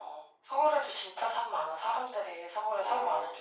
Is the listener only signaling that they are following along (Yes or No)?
No